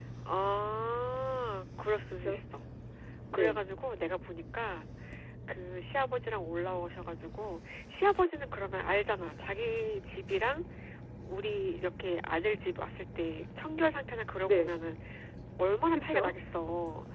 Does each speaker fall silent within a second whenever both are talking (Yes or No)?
Yes